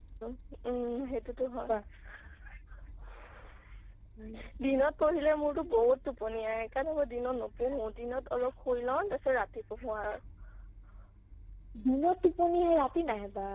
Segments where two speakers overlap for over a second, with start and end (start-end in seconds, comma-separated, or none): none